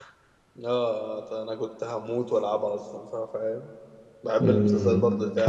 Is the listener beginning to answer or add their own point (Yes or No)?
Yes